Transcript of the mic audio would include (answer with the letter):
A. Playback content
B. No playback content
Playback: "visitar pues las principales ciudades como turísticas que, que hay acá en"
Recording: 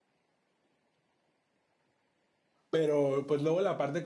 B